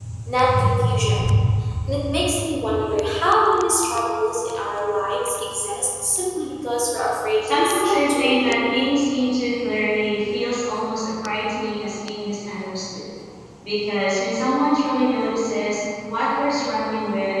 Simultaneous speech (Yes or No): Yes